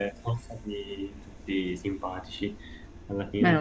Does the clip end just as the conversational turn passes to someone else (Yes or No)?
No